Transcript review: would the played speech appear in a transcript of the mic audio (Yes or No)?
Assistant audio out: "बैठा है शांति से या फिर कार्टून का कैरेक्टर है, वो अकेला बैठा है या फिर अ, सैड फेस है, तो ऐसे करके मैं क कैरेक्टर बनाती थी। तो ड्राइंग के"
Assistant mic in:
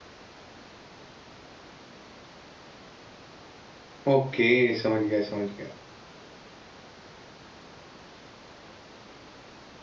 No